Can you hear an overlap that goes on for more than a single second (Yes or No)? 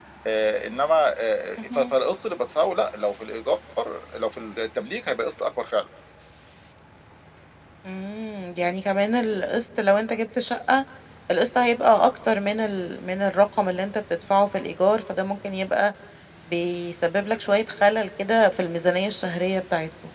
No